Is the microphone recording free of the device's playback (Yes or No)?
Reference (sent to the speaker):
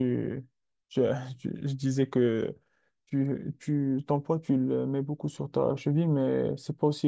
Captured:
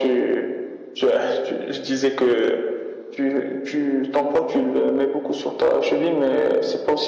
No